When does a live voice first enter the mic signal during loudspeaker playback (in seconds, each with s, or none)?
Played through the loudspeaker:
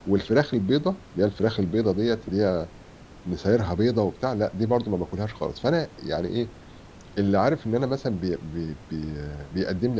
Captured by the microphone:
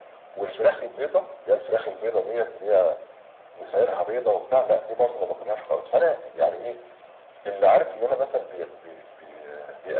none